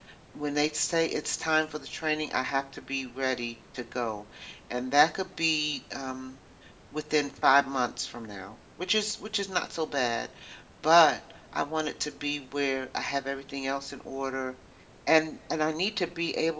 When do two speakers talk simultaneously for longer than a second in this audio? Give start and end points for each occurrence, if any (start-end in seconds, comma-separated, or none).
none